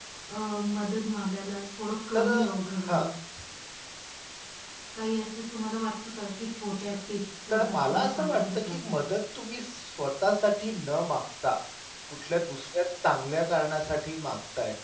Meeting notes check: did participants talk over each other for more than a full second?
Yes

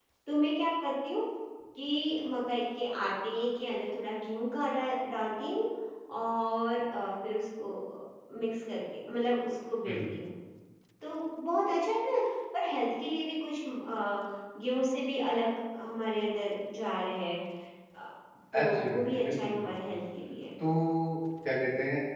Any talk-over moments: Yes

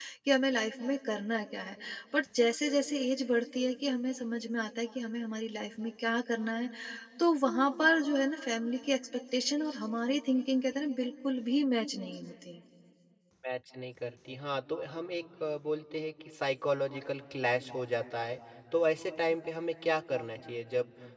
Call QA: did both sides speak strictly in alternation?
Yes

